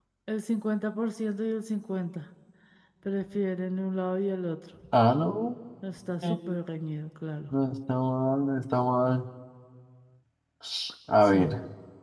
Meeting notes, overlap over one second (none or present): none